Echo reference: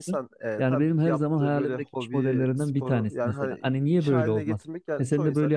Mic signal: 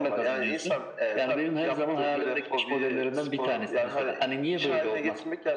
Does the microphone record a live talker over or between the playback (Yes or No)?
No